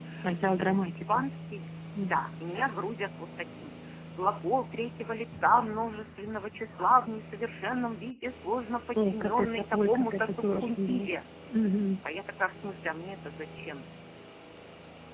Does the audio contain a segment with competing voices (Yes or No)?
Yes